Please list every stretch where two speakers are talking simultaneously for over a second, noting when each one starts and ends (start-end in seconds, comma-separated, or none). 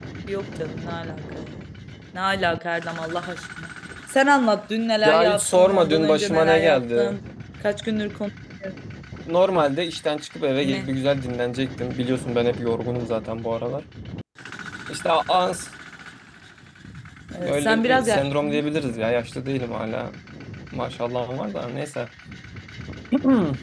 5.0-7.2, 17.4-18.6